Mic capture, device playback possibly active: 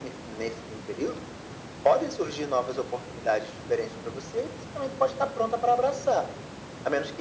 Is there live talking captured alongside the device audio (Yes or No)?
No